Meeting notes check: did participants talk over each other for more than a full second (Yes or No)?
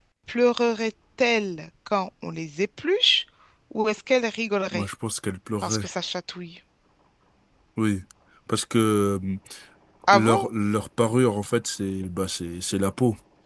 No